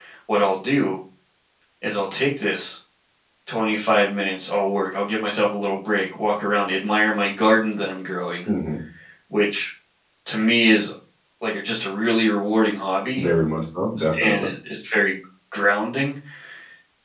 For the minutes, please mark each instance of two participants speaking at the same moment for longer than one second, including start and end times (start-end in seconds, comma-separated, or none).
none